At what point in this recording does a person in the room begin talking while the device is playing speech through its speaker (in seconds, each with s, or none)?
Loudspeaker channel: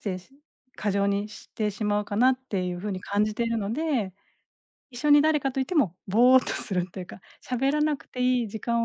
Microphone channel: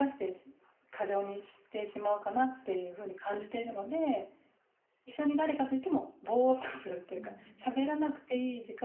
7.1 s